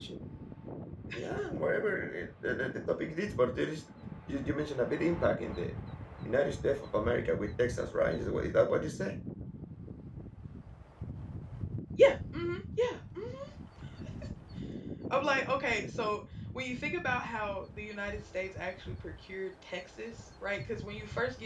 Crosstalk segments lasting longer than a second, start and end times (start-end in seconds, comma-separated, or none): none